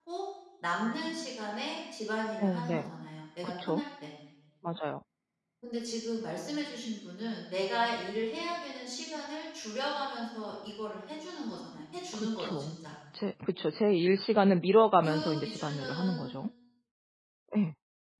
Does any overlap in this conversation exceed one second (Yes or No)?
Yes